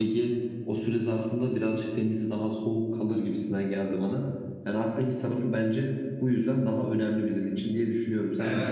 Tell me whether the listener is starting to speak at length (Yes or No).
Yes